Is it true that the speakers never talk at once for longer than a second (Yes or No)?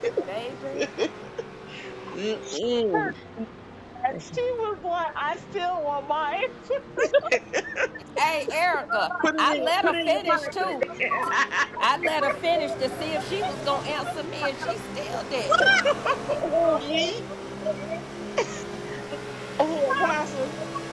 No